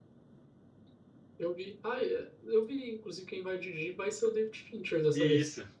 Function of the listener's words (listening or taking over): taking over